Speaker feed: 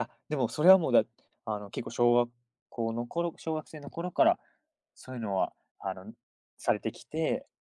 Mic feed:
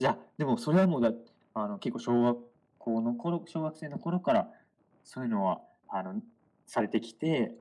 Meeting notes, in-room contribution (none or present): none